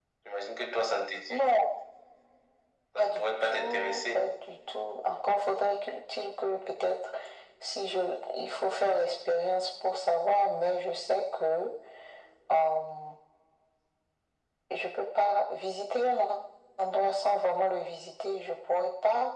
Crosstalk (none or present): present